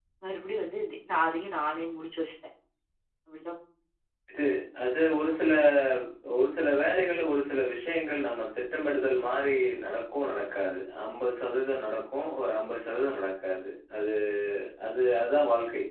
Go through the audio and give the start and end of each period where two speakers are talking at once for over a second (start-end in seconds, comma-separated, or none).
none